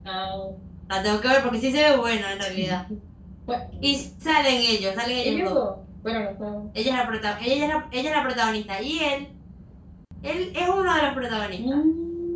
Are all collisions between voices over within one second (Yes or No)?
Yes